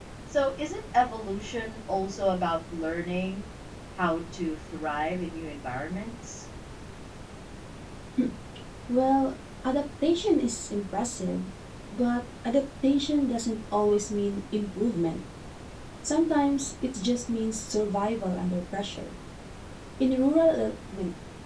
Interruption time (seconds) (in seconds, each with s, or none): none